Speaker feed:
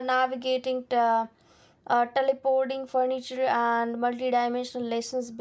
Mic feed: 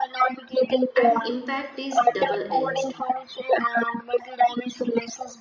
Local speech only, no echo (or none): And impact is double edged.